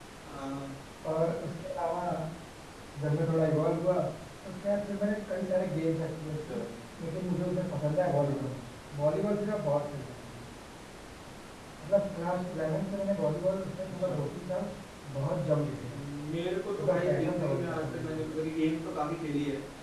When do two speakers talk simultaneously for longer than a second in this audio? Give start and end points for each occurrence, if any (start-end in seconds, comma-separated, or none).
16.8-18.3